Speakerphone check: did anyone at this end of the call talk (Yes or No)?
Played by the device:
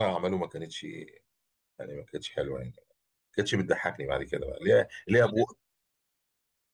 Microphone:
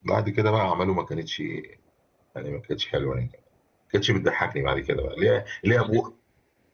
No